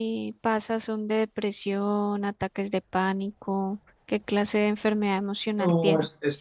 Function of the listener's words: taking over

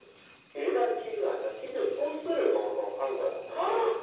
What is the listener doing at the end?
taking over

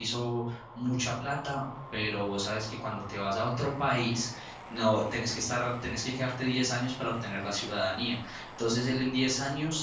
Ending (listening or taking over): listening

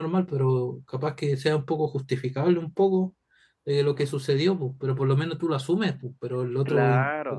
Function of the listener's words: taking over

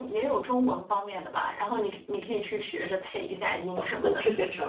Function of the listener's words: taking over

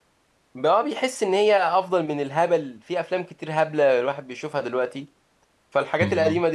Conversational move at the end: listening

